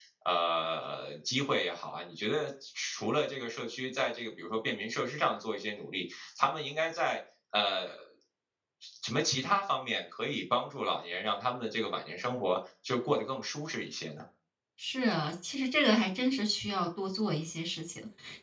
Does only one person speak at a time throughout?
Yes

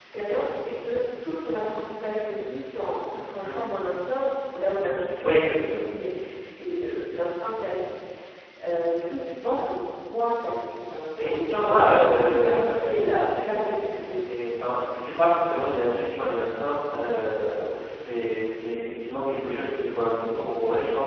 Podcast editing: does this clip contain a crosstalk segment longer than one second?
Yes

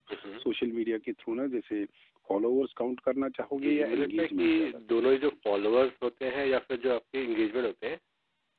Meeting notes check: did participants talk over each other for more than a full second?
Yes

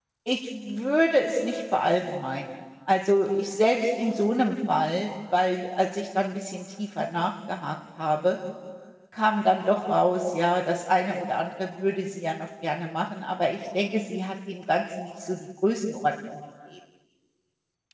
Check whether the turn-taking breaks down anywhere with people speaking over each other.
No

